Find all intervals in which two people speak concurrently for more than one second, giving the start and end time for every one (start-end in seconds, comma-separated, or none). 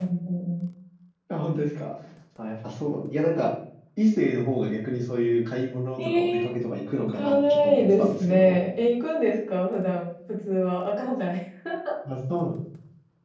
6.9-8.6